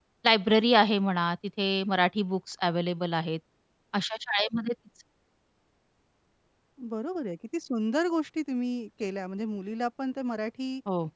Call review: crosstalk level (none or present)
none